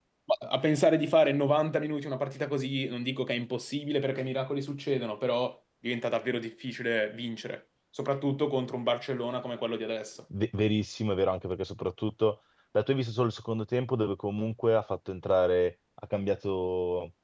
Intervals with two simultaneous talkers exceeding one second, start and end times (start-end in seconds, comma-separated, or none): none